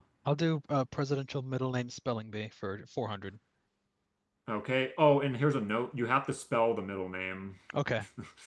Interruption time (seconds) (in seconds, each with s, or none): none